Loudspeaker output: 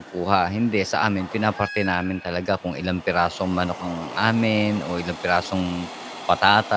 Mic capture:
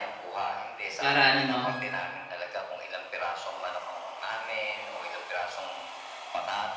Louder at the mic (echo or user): user